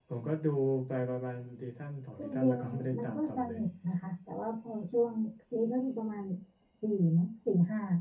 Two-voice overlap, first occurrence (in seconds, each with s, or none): 2.2 s